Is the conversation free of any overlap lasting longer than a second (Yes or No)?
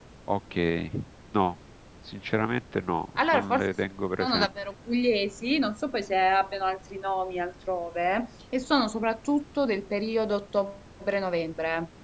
Yes